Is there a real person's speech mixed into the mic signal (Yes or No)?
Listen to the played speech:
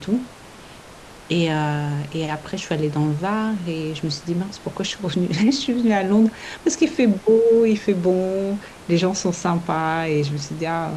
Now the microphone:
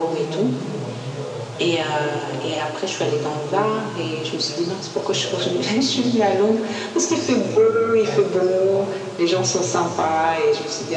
Yes